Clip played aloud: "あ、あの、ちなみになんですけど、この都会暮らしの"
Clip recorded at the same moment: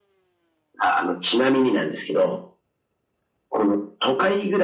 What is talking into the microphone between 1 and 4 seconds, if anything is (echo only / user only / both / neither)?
echo only